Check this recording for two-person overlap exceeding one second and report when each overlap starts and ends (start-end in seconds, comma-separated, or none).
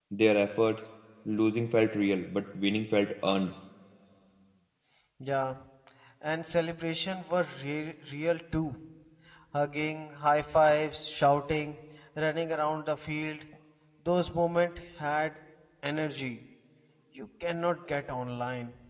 none